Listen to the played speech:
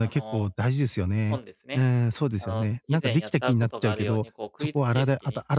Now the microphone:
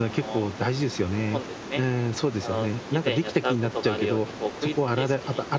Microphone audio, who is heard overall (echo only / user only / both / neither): echo only